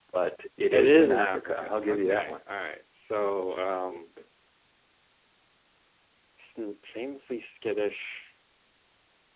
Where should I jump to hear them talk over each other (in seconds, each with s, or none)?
0.7 s